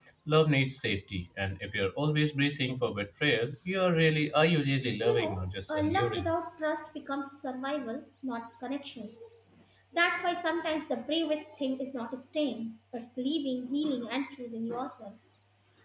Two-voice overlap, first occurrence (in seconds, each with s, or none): 5.0 s